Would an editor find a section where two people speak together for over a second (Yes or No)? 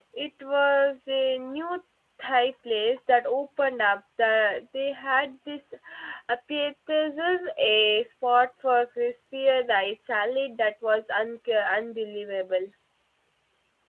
No